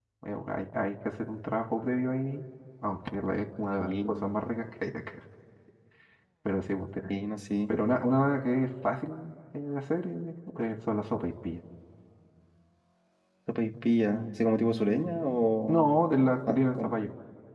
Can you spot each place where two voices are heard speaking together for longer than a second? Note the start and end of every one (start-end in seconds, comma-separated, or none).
none